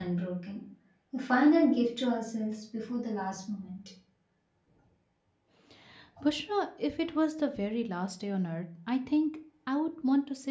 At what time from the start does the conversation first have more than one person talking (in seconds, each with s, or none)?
none